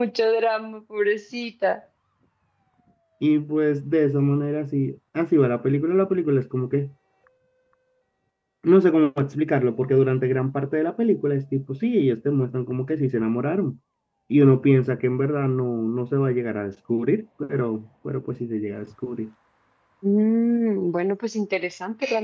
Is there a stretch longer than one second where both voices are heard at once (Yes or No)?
No